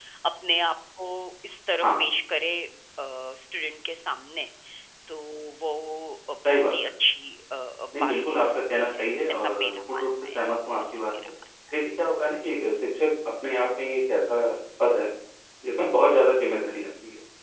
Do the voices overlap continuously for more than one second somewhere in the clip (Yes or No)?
Yes